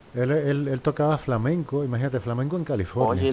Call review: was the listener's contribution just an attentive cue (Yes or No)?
No